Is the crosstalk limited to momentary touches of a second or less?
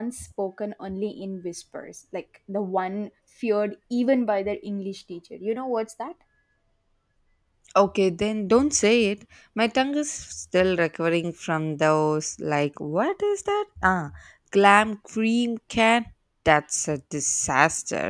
Yes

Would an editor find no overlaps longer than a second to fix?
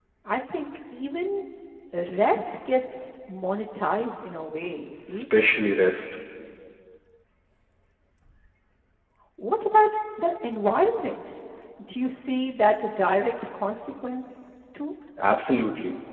Yes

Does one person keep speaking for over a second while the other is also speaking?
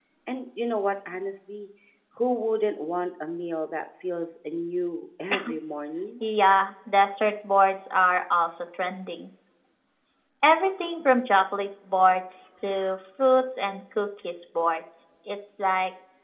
No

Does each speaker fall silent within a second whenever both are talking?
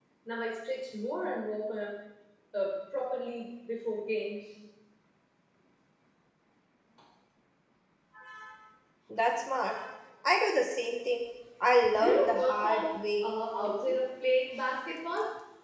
No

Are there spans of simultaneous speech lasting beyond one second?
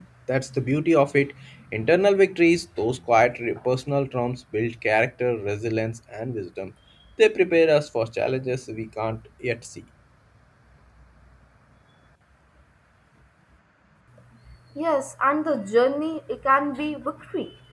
No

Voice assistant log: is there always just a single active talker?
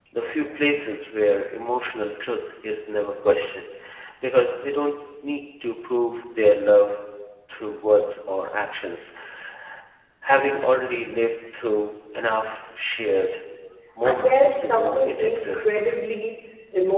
No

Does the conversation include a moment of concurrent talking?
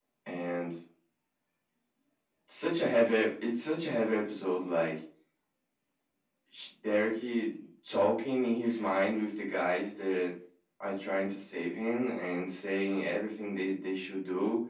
No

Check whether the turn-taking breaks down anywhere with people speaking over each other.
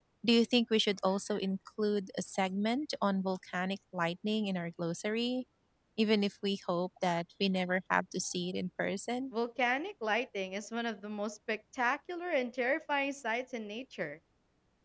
No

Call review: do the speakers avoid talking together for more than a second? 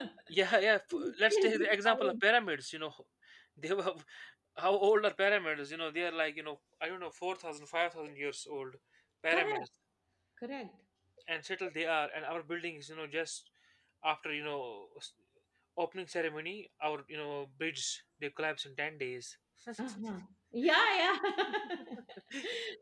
No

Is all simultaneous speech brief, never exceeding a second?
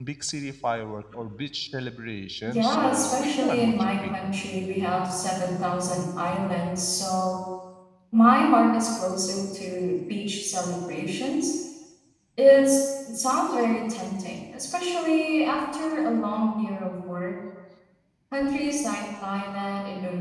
No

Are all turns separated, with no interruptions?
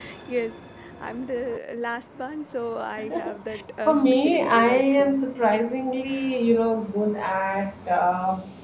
No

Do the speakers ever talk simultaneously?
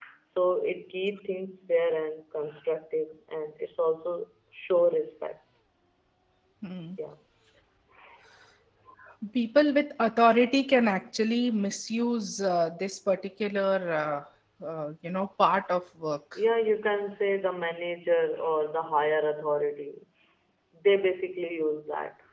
No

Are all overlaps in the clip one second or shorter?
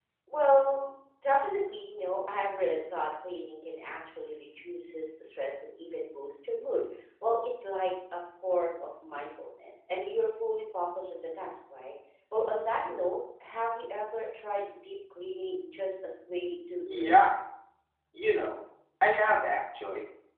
Yes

